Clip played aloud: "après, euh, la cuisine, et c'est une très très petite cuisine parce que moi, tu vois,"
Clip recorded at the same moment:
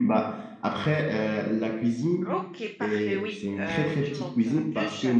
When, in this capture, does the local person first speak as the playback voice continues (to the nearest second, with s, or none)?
2 s